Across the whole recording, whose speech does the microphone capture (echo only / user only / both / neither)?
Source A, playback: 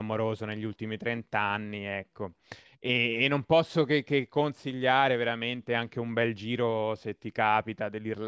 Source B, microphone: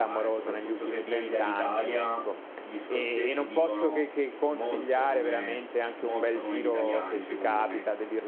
both